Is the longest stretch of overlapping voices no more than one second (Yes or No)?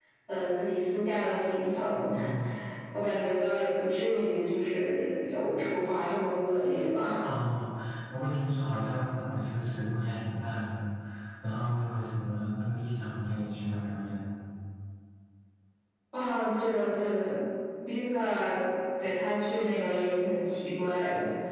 Yes